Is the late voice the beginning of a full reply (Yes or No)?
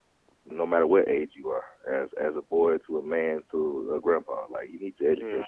Yes